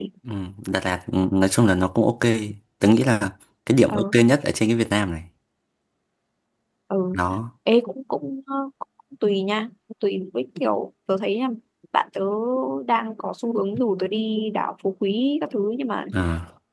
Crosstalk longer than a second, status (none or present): none